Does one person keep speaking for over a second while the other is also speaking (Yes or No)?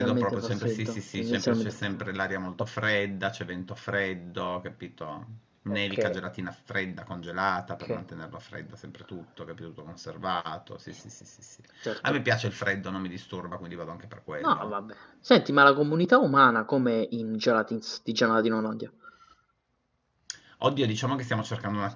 Yes